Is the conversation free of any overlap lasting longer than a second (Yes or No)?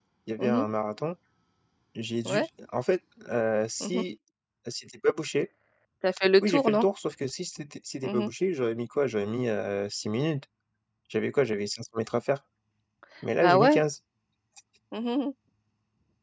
Yes